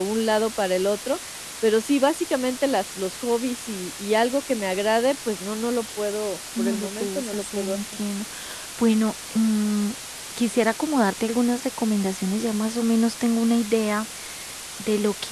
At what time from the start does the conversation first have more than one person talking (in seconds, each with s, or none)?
6.6 s